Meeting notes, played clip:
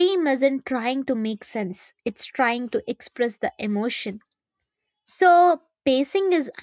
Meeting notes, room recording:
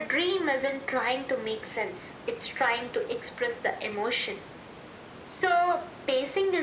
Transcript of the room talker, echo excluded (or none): none